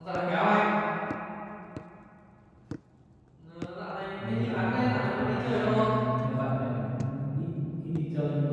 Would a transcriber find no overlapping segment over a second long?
No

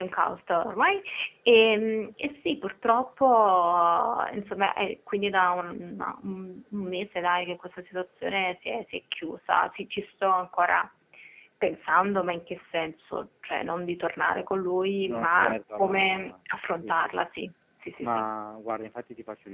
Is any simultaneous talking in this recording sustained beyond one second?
Yes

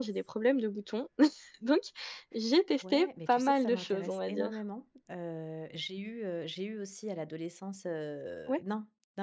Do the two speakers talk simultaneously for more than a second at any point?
Yes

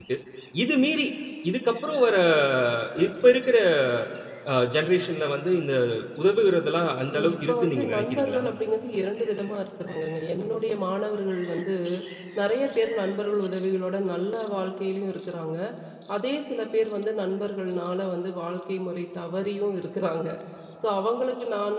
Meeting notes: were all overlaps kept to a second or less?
No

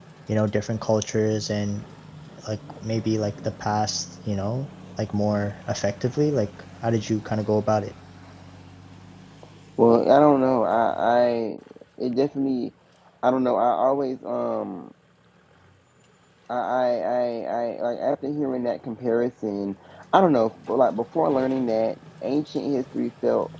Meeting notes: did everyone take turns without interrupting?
Yes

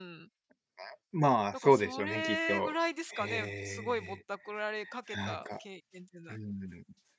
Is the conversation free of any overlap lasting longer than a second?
No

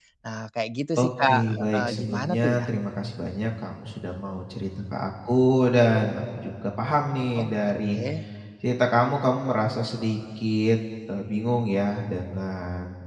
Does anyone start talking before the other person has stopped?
Yes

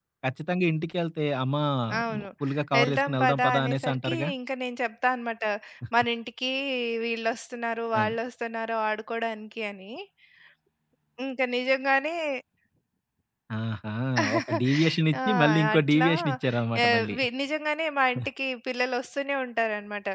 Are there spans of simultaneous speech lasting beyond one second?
Yes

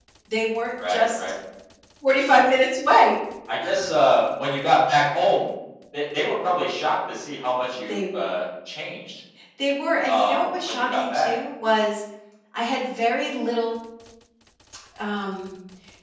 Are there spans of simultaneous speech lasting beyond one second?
Yes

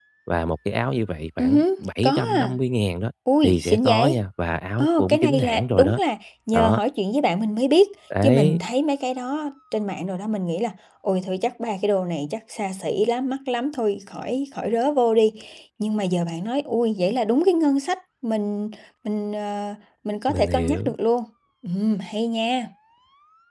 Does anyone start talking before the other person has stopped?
Yes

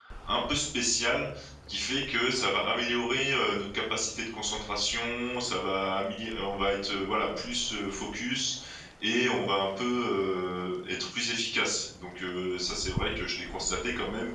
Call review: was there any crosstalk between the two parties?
No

